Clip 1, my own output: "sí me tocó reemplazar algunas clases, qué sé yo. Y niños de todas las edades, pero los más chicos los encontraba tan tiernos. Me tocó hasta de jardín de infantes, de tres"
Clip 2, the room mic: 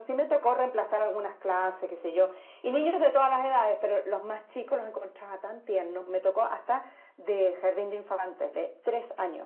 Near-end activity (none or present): none